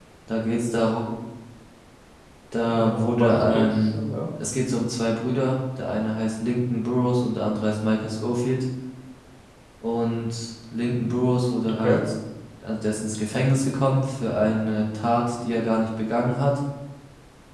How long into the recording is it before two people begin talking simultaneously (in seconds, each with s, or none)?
2.7 s